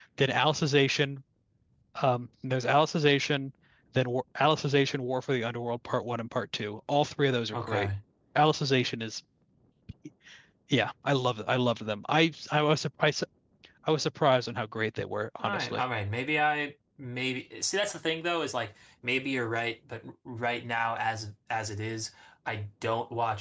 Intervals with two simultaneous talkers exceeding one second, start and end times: none

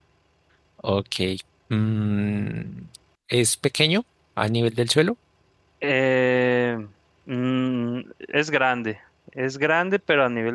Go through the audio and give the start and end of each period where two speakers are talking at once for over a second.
none

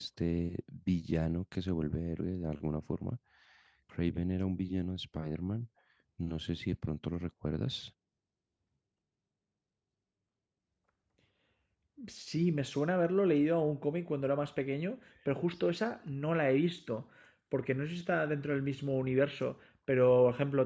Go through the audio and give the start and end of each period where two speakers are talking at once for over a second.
none

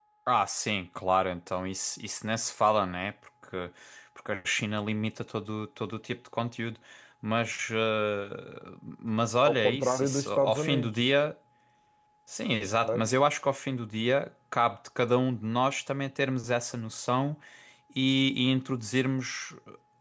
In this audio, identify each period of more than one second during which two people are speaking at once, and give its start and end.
9.4-10.9

